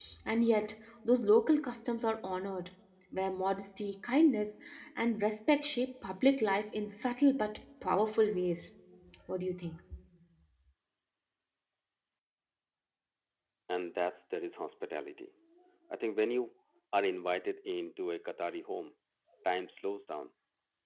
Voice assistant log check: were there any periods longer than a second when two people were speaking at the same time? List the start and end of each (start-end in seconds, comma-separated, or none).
none